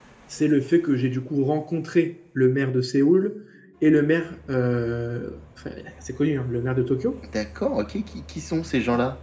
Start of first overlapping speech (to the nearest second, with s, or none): none